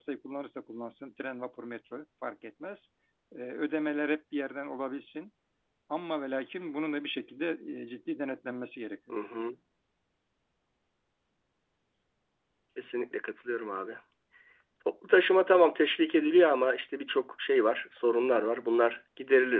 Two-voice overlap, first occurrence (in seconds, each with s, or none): none